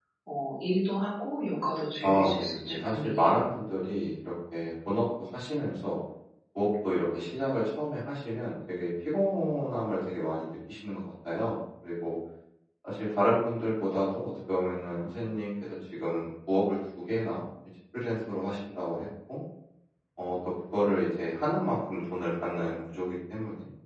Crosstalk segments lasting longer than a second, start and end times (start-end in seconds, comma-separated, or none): 2.0-3.3